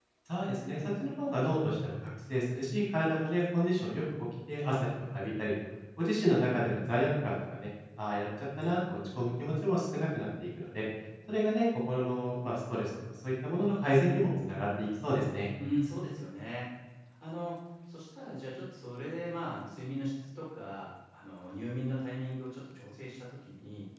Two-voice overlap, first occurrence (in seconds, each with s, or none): none